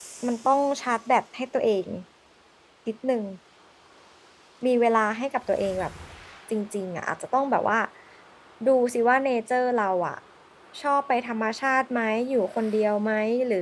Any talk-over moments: No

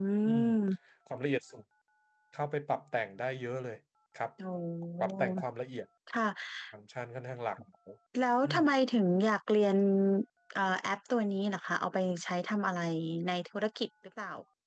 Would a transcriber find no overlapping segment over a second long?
Yes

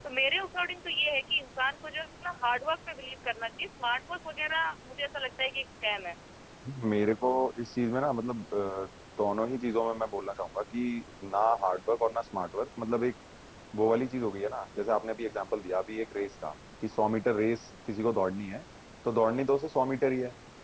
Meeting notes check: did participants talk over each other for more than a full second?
No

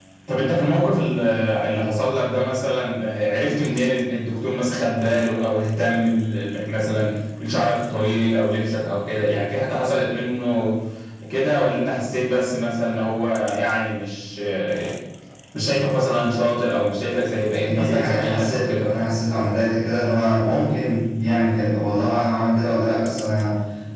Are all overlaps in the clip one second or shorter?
No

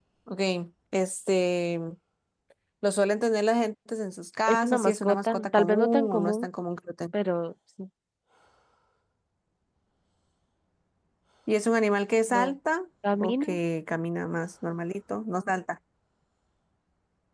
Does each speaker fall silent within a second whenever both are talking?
No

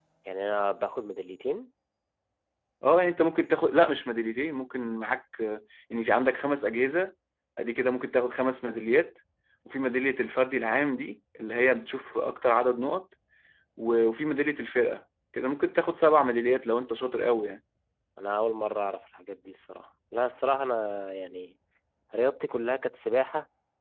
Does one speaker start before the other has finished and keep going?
No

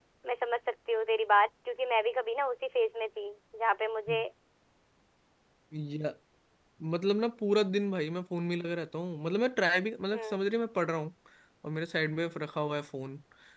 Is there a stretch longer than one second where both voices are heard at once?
No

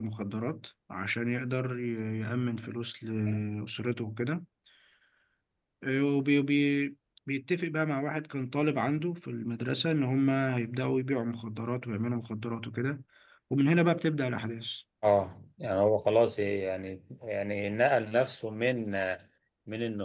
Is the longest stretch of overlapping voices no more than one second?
Yes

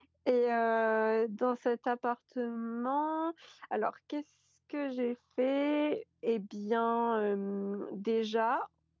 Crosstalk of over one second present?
No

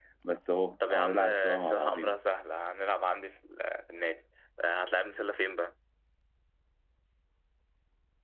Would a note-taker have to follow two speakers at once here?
Yes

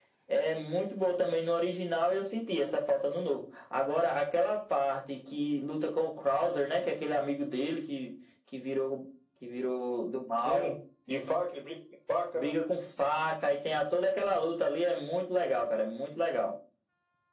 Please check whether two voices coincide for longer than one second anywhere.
No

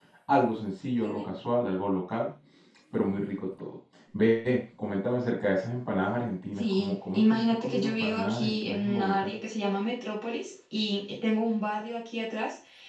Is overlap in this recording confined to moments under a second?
No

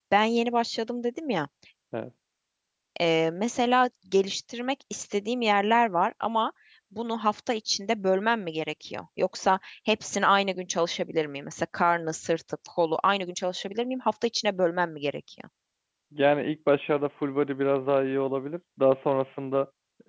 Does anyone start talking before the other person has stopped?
No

